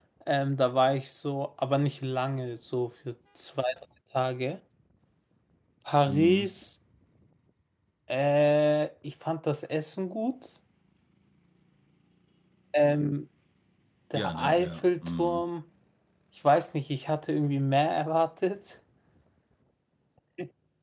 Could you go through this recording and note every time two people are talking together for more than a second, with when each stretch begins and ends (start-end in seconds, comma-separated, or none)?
14.1-15.4